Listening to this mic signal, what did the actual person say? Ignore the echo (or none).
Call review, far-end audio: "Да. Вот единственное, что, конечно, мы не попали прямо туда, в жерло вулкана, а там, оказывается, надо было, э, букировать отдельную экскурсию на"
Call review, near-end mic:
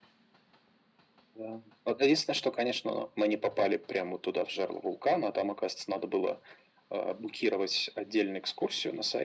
none